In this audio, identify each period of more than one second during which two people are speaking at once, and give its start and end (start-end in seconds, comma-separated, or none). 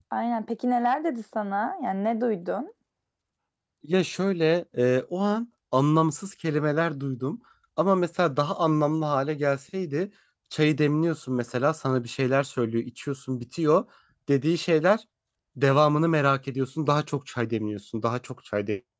none